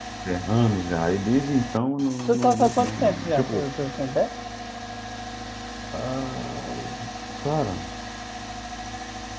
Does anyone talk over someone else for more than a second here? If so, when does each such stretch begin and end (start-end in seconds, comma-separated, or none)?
2.3-3.7